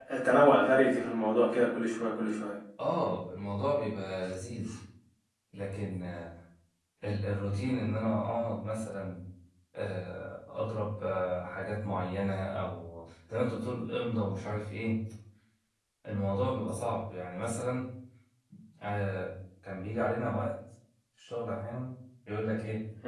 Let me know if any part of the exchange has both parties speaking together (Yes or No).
No